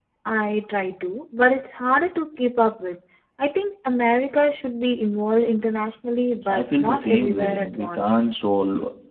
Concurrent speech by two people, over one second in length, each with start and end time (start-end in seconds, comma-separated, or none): 6.5-8.2